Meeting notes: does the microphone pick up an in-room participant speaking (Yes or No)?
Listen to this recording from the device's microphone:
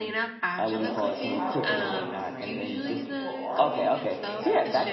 Yes